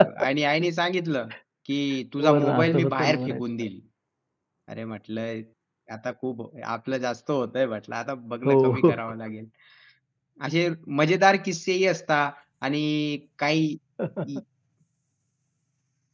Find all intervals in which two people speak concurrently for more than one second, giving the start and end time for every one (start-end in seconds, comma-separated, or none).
2.2-3.4